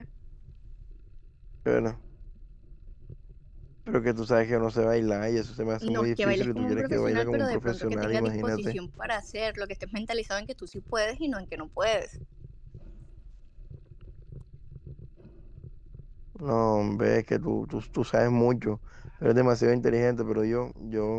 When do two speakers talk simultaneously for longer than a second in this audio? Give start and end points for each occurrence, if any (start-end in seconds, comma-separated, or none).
5.8-8.8